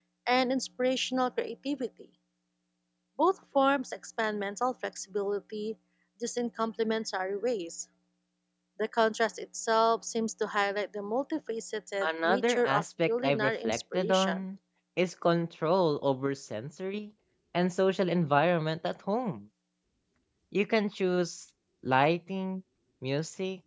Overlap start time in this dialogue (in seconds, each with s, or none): 12.0 s